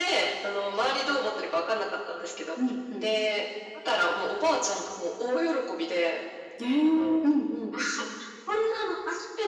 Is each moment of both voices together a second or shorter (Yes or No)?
Yes